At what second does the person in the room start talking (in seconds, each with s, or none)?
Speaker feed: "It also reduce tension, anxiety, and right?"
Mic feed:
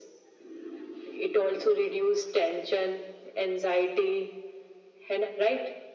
none